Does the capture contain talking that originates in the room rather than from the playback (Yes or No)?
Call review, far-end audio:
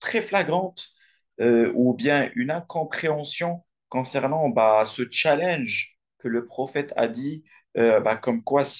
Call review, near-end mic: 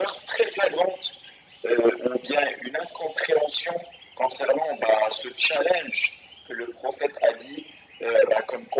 No